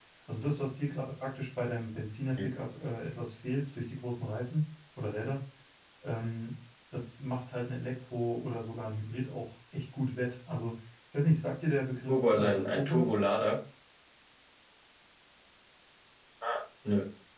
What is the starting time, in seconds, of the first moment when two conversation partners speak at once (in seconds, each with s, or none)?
12.1 s